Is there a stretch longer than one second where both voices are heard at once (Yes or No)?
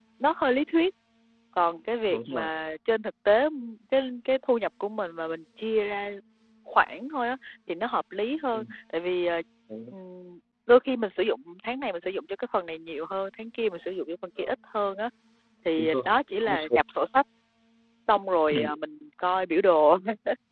No